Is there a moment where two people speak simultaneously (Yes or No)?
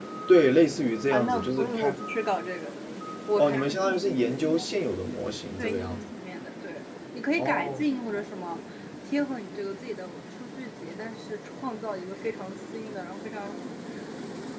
Yes